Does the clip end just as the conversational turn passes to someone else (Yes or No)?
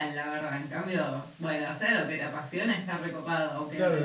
Yes